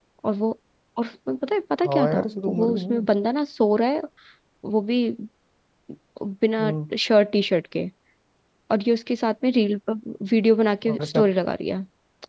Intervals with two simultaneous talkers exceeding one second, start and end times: 1.8-3.1

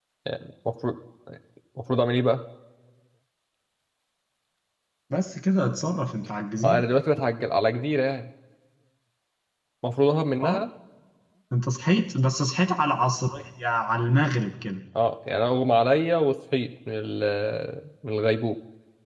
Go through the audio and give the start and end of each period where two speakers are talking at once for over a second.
none

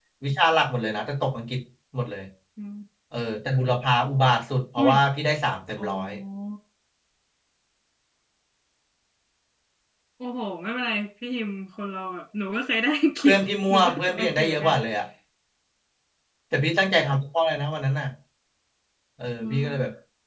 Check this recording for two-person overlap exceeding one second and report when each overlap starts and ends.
13.2-14.7

